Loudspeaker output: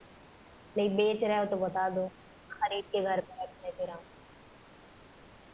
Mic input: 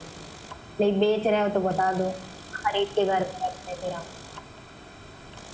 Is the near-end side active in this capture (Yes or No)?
No